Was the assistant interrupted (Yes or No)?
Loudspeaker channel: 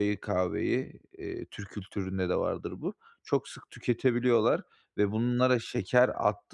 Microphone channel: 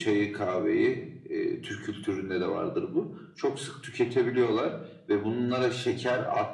No